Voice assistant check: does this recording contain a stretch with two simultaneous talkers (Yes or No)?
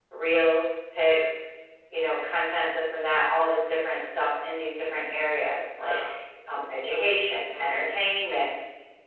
Yes